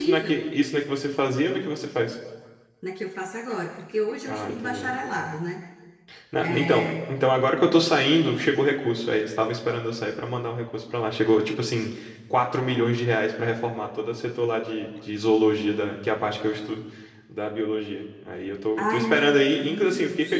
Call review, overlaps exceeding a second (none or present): present